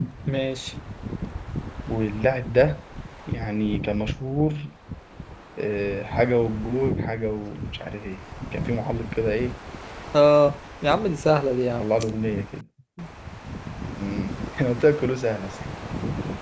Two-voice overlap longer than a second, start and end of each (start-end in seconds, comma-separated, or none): none